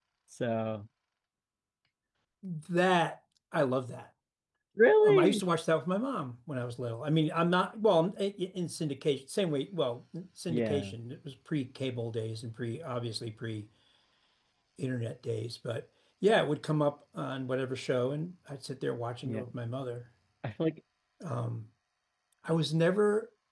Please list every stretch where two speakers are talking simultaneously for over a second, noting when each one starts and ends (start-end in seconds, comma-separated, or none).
none